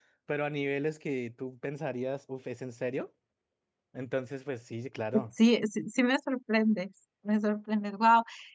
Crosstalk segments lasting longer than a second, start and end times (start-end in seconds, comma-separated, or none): none